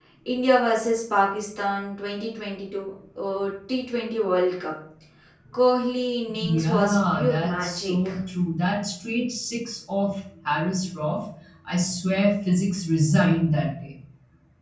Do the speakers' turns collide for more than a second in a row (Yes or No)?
Yes